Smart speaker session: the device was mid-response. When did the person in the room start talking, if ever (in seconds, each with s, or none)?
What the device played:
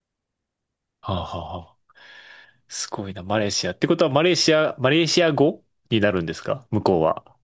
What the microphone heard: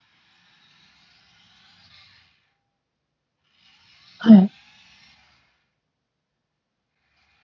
4.2 s